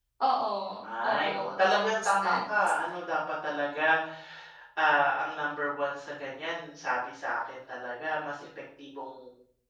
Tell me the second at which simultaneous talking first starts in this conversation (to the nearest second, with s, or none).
1 s